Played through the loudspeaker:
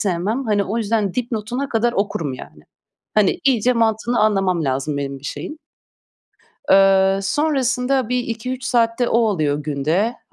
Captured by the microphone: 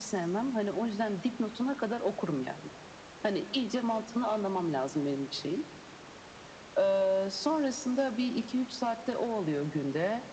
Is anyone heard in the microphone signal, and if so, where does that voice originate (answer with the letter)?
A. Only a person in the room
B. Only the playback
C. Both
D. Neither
B